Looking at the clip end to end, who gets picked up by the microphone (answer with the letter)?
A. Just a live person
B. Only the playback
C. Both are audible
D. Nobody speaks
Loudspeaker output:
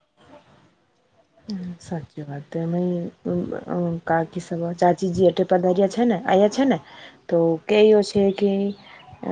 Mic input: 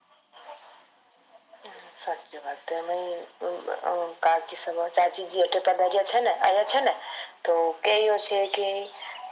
B